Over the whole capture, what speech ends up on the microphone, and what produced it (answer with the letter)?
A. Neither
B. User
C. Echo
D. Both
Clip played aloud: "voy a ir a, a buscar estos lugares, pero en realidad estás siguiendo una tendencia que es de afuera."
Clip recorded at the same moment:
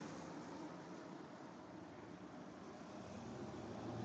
A